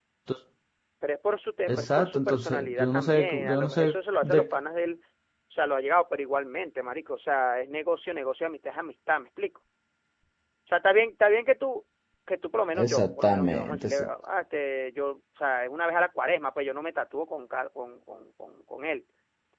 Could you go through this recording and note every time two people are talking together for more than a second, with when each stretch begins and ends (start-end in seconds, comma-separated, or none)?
1.7-4.5, 12.8-14.1